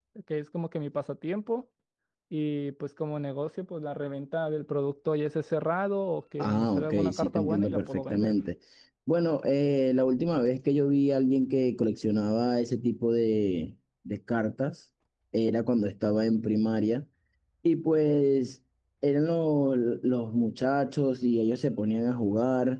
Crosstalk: present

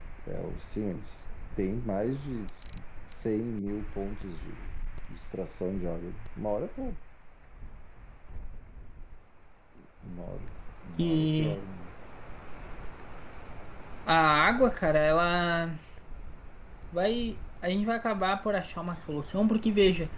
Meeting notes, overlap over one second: none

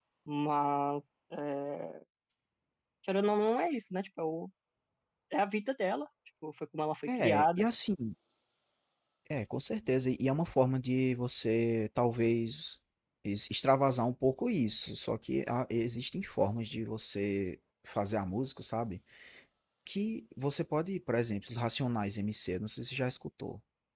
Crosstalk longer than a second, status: none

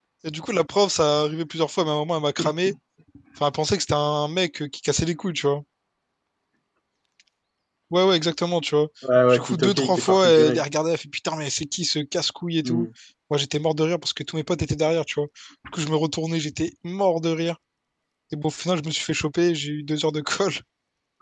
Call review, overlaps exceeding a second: present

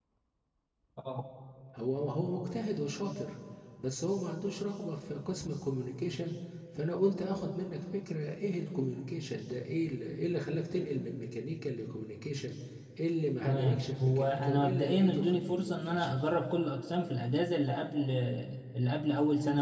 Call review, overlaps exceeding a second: present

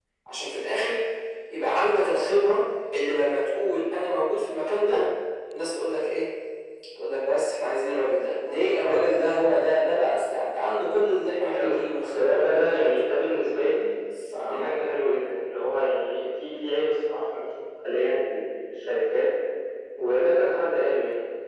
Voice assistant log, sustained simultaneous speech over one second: present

